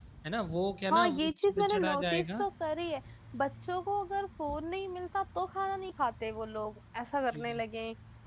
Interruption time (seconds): 0.9 s

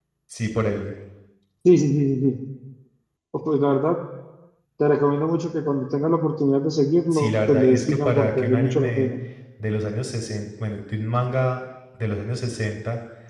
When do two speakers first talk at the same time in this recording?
7.1 s

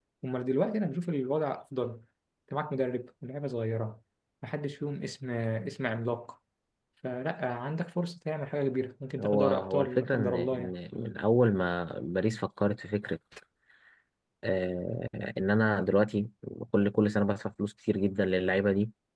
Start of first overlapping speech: 9.2 s

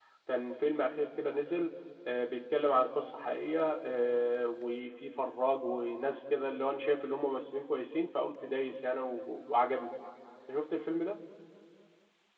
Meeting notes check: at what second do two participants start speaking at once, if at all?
none

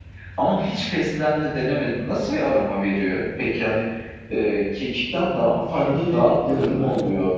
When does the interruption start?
5.7 s

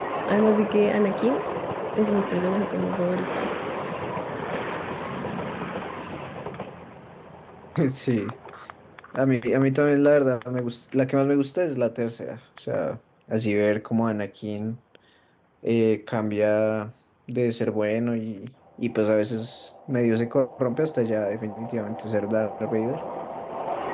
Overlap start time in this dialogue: none

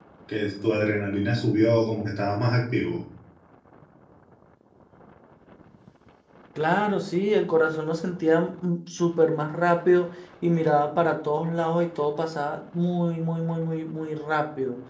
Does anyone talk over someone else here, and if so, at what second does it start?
none

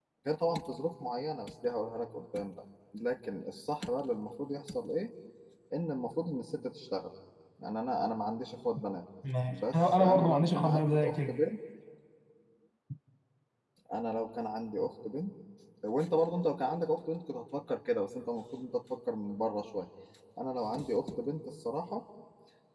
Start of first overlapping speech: 9.5 s

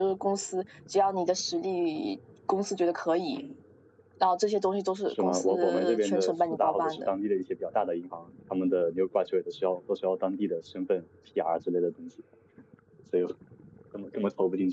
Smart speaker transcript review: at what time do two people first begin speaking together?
5.1 s

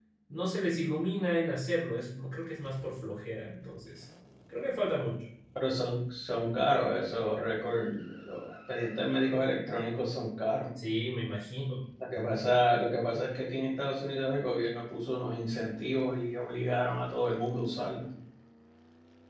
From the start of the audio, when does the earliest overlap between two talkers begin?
none

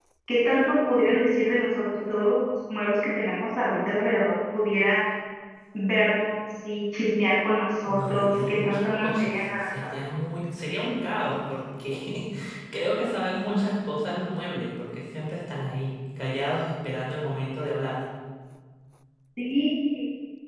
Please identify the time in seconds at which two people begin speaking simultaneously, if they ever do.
7.8 s

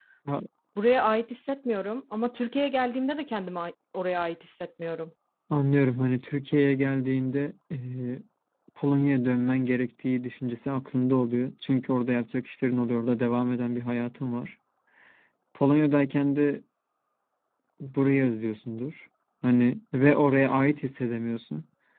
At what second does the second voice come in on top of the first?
none

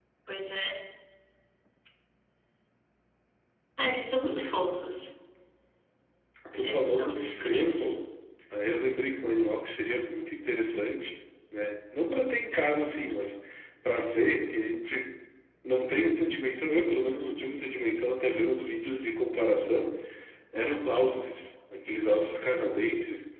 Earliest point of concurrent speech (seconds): 6.5 s

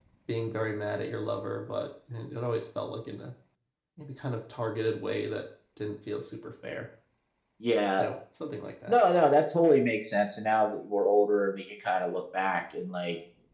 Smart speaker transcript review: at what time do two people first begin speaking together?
none

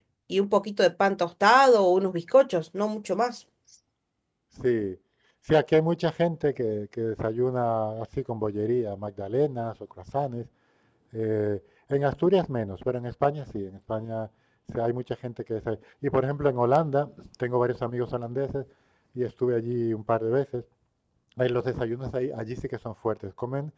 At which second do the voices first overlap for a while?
none

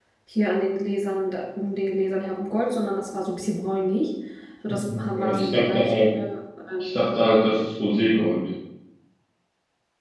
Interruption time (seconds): 4.7 s

